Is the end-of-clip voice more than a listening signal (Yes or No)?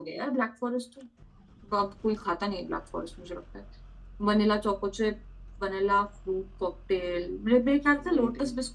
No